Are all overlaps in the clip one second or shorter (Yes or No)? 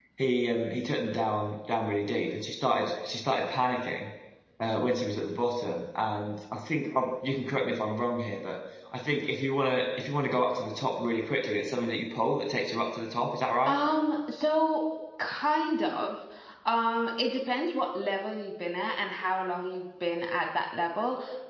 Yes